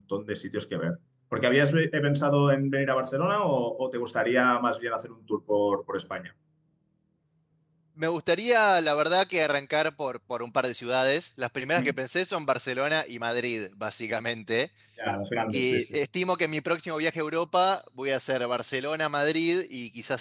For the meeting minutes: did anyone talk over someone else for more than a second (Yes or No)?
No